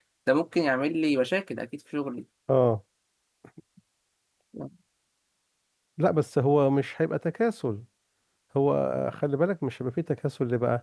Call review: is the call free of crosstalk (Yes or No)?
Yes